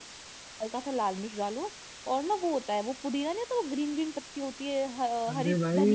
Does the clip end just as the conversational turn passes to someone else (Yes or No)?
Yes